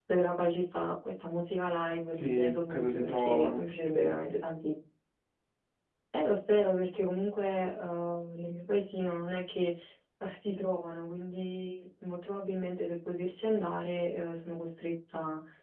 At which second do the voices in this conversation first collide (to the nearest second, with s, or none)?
2 s